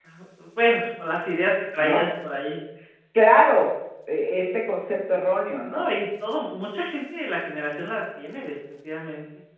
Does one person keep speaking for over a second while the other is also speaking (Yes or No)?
No